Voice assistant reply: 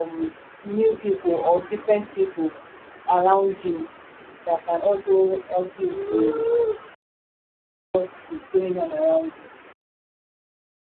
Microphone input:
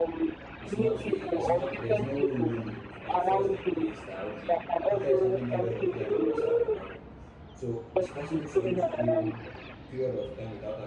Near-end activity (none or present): present